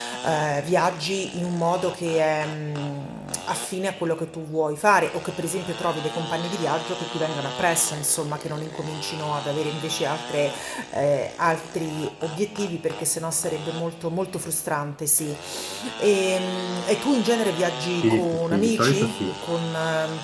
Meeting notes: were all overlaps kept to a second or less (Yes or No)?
No